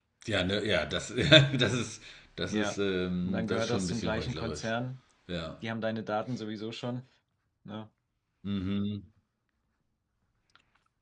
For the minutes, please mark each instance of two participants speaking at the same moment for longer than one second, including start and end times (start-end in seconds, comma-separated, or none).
3.2-4.7